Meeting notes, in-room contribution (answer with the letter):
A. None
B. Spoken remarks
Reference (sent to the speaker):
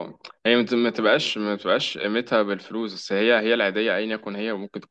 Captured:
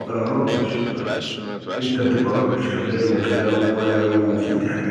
B